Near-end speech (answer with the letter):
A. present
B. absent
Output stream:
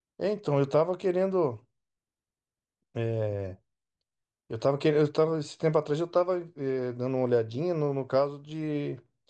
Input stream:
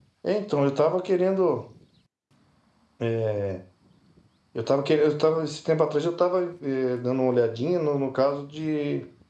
B